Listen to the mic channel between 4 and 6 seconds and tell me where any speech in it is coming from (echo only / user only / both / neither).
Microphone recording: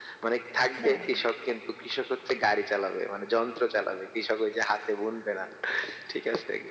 echo only